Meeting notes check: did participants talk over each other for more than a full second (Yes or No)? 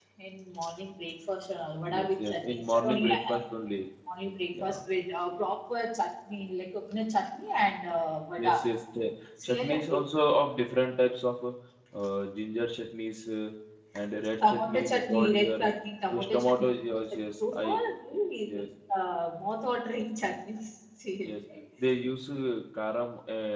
Yes